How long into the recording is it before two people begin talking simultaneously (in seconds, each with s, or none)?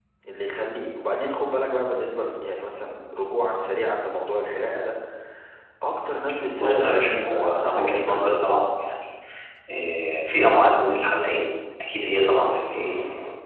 6.5 s